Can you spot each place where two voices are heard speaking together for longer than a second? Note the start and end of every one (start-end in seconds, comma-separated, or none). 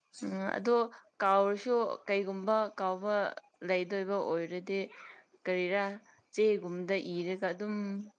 none